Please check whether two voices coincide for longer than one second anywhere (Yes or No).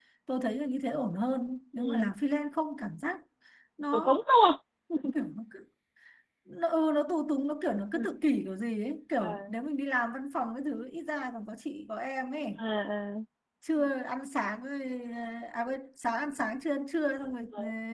No